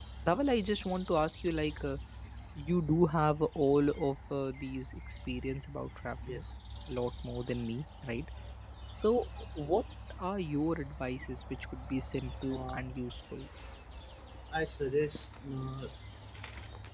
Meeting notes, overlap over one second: none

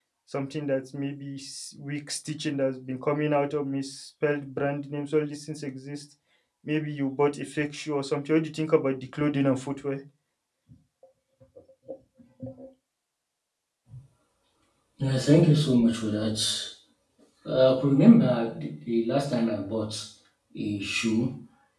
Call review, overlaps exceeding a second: none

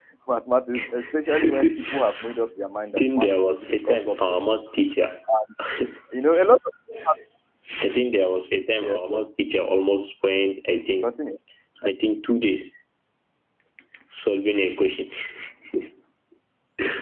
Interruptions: present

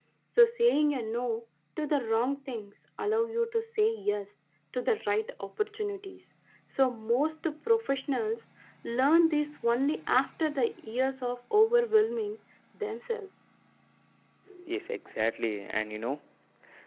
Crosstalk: none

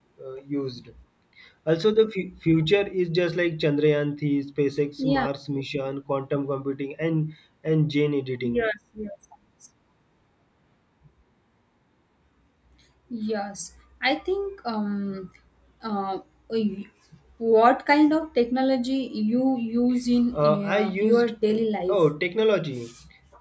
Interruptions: present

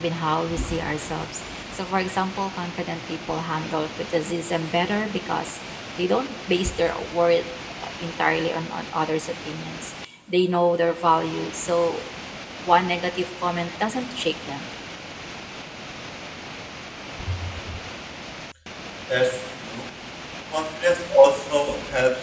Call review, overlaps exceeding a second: none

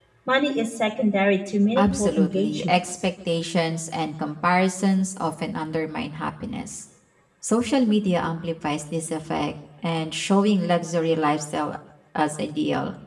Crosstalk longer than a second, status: present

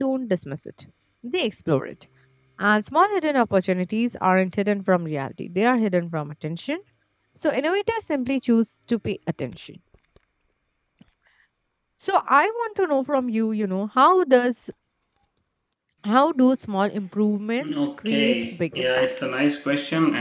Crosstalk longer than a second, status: present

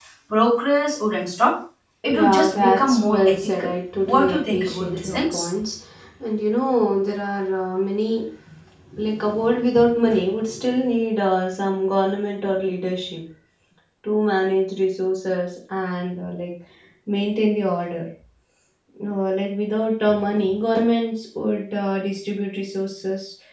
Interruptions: present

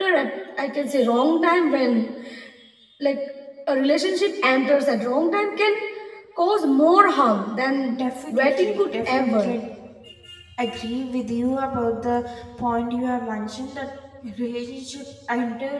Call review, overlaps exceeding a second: present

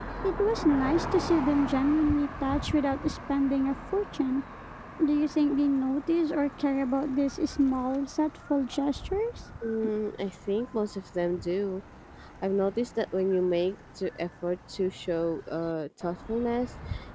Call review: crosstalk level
none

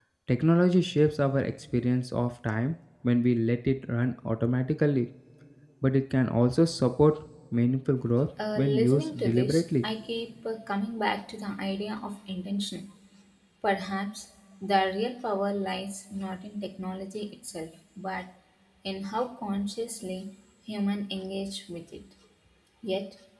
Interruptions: present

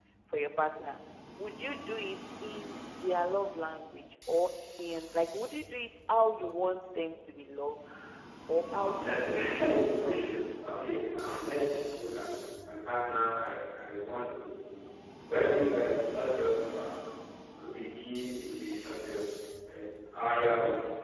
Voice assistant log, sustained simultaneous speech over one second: present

